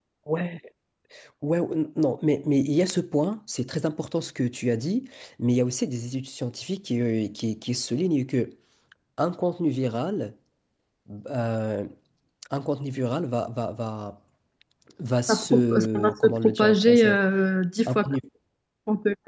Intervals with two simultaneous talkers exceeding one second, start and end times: 15.3-17.2

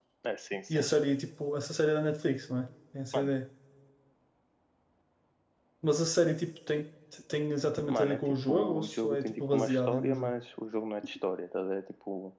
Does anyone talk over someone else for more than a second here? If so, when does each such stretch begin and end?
7.9-10.3

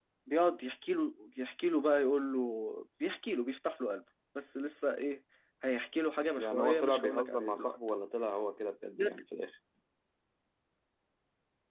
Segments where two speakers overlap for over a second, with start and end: 6.4-7.8

